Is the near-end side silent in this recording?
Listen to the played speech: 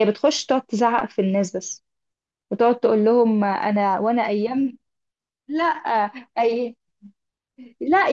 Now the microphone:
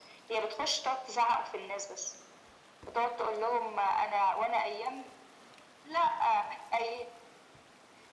Yes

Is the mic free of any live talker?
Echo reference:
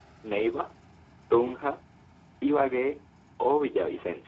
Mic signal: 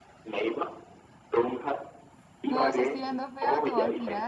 No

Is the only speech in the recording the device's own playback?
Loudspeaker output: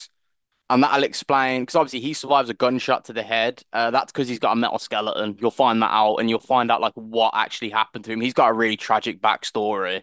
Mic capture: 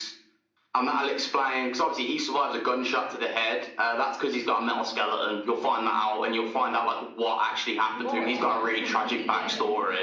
No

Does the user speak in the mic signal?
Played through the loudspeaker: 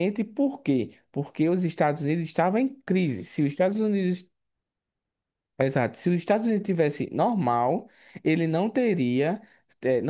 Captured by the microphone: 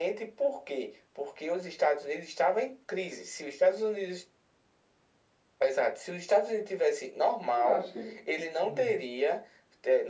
Yes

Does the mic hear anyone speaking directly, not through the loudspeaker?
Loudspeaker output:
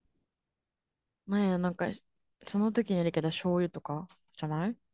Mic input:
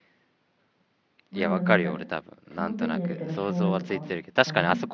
Yes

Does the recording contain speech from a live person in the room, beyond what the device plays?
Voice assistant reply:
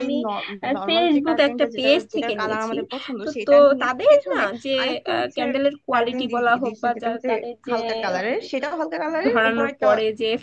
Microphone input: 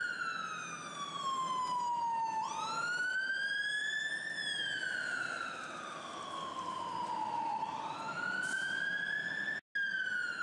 No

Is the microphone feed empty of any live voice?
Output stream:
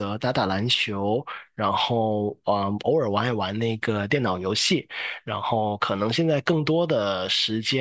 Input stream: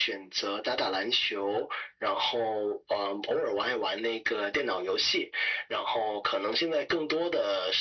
Yes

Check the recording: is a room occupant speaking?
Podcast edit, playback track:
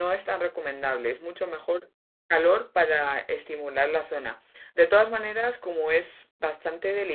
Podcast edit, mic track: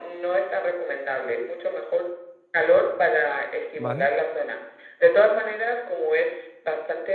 Yes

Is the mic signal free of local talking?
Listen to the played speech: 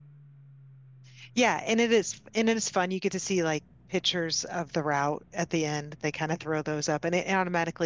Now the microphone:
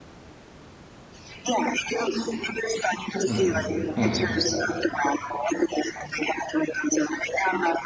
No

